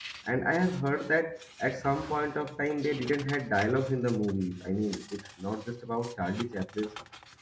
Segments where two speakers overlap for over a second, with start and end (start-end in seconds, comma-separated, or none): none